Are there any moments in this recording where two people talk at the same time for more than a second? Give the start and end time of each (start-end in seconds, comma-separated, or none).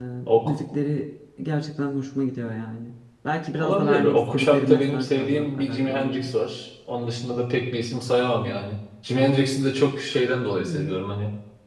3.6-6.3